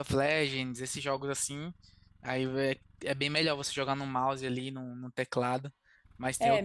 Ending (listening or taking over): taking over